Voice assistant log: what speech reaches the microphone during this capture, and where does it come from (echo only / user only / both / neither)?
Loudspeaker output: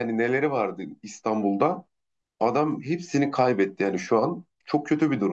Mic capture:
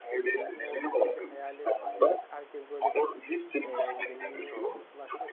both